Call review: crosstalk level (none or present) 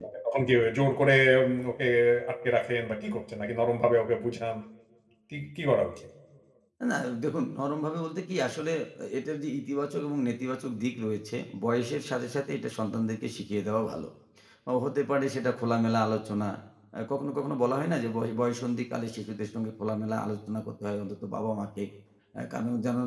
none